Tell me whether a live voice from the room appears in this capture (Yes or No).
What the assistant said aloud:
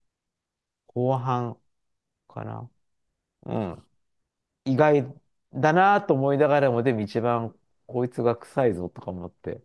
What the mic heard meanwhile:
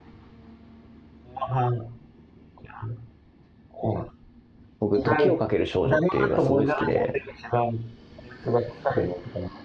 Yes